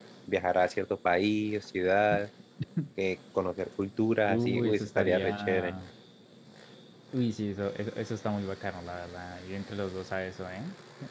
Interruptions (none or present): present